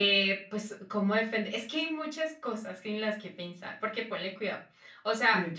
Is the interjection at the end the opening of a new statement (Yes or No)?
No